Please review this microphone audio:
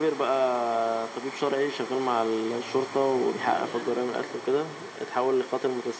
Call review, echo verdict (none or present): present